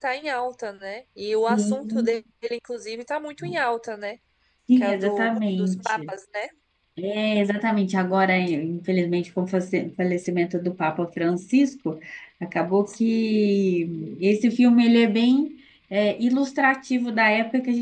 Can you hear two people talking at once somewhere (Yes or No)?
Yes